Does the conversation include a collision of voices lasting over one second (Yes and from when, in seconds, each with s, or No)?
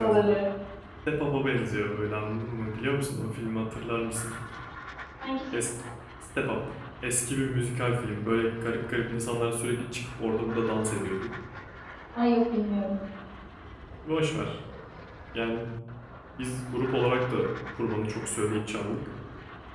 No